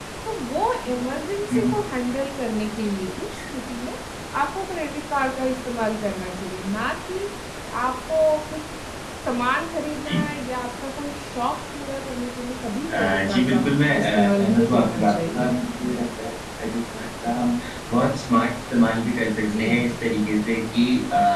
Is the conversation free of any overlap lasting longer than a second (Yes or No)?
No